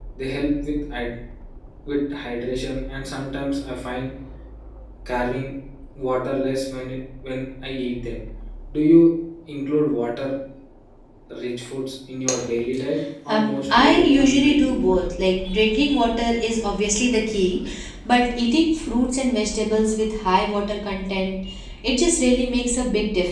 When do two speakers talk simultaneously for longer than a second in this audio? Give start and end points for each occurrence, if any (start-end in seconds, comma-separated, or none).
13.3-15.1